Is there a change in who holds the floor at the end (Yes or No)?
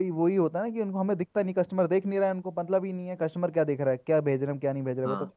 No